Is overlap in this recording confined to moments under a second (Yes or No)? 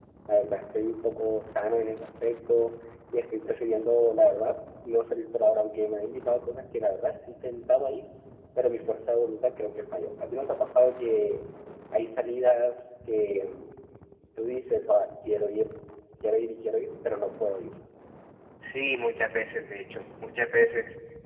Yes